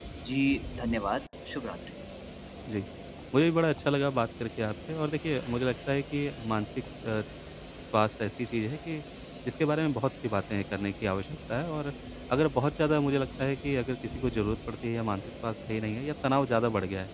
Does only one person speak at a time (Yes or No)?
Yes